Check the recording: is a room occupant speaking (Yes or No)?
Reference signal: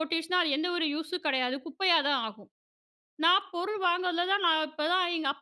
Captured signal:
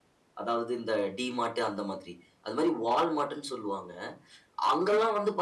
Yes